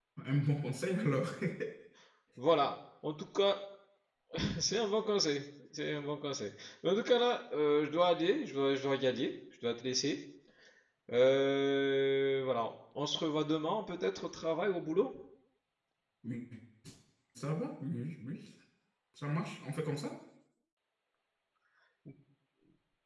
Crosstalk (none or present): none